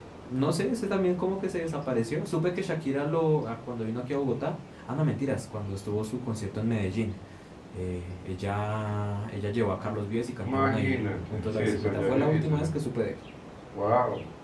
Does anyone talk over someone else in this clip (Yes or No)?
Yes